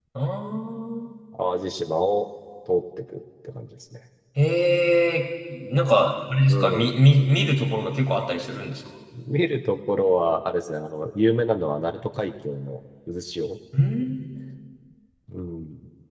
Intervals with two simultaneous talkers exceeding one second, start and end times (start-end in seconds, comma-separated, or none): none